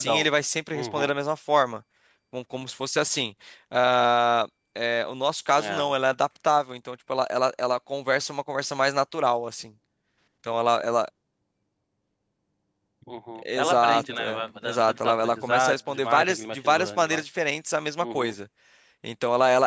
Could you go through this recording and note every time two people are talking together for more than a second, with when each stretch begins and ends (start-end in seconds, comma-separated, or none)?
13.6-17.2